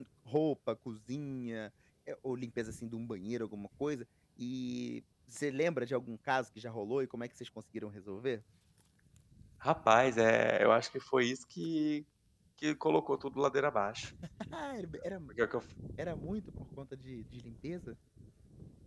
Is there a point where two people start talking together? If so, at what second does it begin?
none

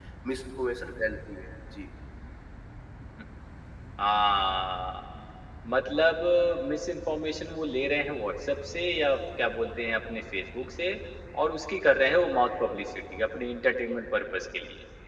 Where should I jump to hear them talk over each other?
none

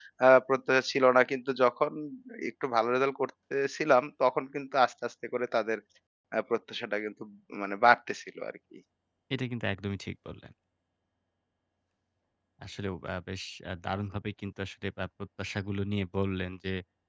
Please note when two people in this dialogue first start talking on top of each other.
none

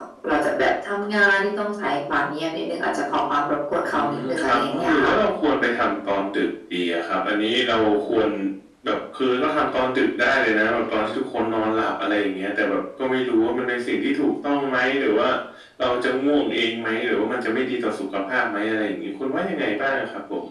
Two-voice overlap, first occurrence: 3.8 s

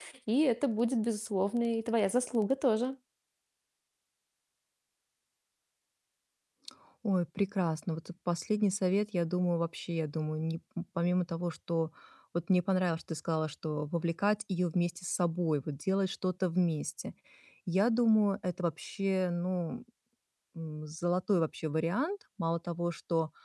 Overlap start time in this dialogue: none

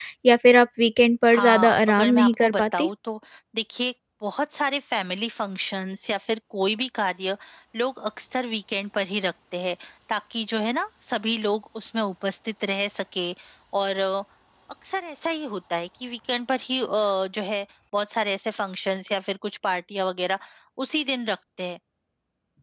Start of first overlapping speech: 1.3 s

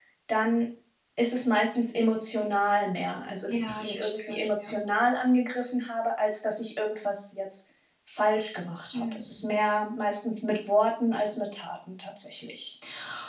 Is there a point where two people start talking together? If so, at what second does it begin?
3.5 s

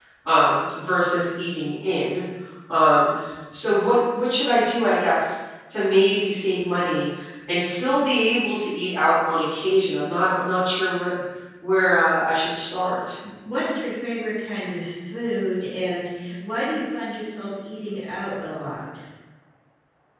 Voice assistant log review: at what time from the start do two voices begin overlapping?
none

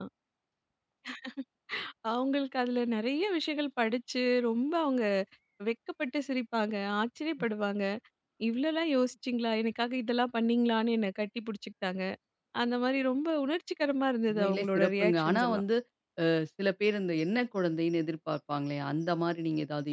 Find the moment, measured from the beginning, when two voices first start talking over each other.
14.3 s

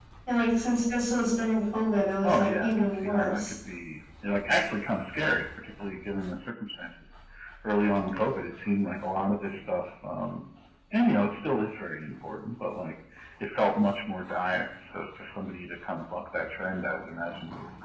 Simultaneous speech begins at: 2.2 s

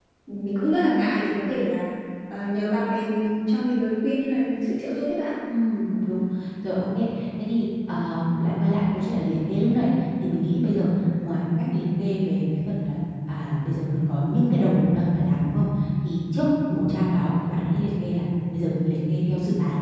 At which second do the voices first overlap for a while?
none

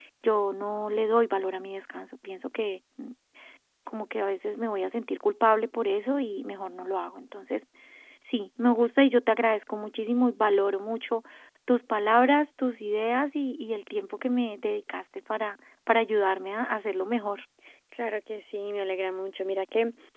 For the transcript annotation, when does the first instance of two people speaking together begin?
none

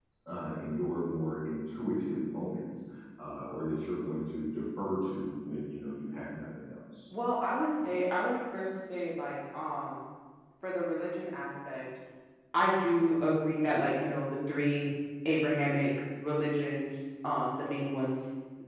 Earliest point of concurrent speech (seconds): none

